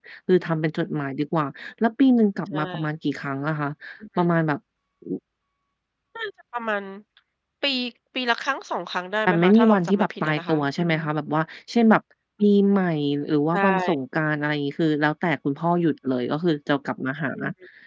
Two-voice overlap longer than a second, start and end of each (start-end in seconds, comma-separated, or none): 9.3-11.0